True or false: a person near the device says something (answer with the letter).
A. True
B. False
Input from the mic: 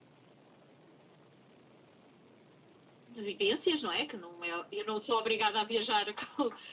A